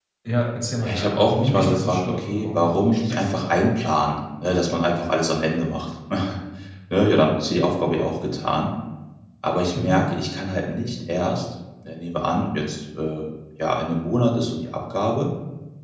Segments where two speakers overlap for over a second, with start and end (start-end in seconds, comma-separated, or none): 0.8-3.2